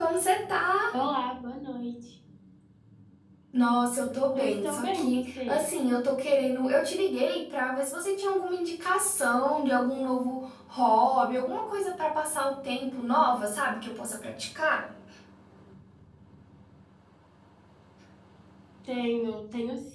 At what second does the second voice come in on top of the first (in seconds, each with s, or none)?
4.3 s